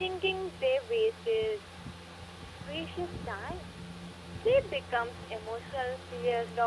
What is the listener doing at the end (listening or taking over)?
taking over